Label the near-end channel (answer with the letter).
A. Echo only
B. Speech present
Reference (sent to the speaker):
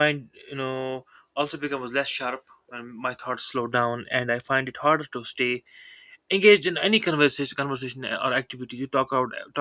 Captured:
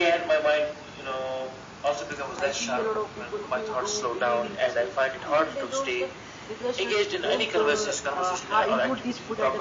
B